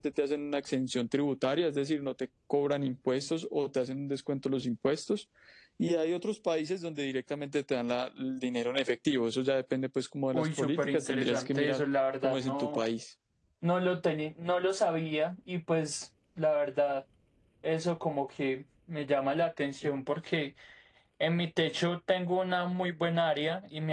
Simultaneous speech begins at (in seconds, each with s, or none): 10.3 s